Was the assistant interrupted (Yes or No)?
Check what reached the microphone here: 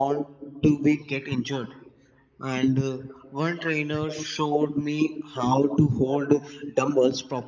No